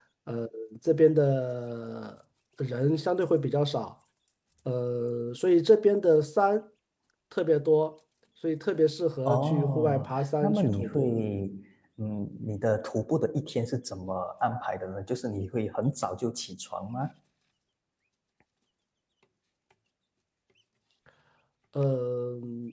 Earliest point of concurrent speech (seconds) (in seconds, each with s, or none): 9.2 s